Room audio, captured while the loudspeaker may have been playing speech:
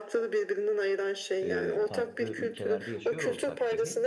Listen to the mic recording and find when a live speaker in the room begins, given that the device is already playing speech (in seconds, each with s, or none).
1.4 s